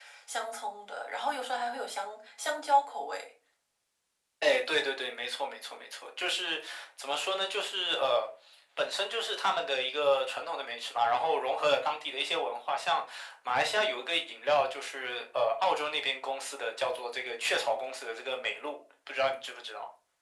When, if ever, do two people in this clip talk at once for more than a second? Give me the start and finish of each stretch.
none

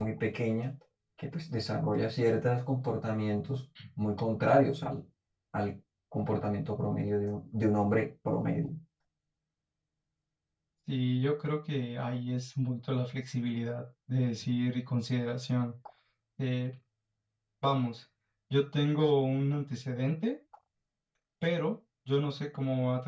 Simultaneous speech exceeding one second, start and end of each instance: none

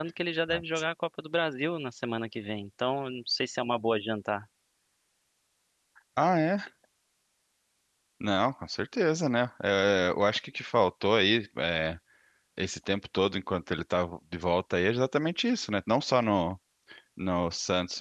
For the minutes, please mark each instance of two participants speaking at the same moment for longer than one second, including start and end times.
none

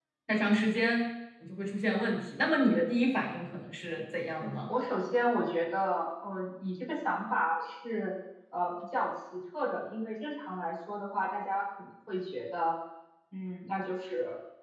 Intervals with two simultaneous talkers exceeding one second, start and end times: none

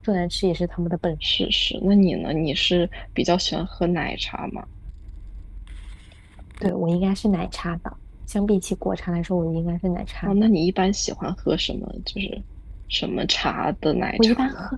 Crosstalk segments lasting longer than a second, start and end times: none

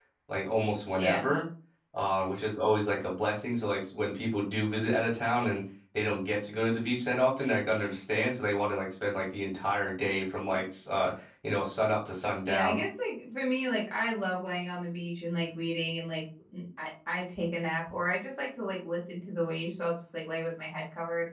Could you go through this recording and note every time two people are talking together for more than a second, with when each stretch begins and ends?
none

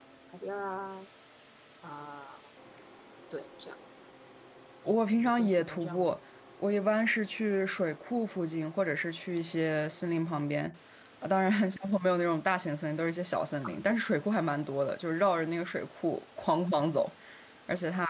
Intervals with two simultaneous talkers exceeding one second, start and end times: 4.9-6.1

